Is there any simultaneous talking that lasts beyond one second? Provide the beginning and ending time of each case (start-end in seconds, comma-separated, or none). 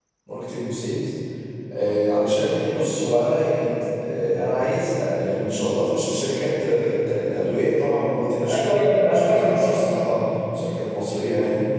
8.5-9.8